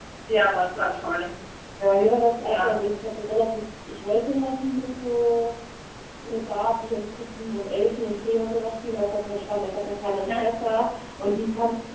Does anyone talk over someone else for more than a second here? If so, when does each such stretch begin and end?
none

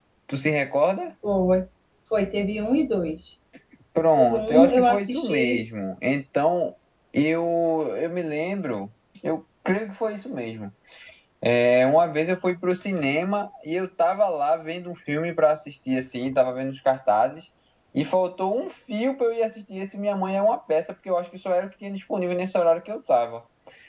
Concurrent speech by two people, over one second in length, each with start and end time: 4.2-5.6

